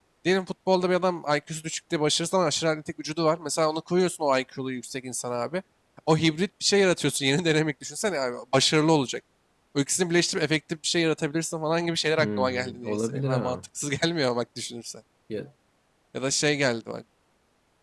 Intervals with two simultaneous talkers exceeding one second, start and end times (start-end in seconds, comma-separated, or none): 12.2-13.6